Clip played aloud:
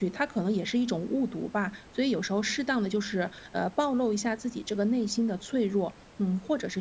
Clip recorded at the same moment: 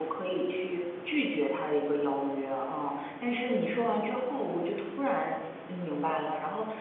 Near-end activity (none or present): present